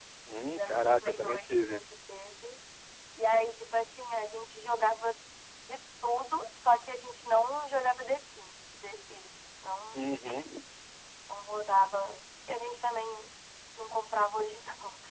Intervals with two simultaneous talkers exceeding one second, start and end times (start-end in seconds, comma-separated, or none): 0.5-1.8